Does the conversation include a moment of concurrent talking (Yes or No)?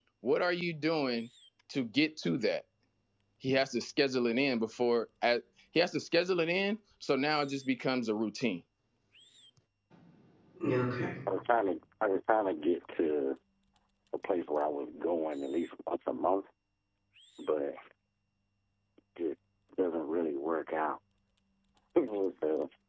No